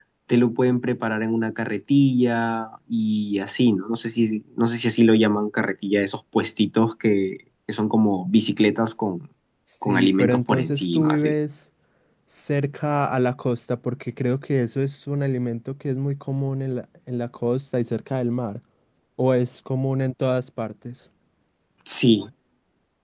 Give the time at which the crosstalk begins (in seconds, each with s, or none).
9.9 s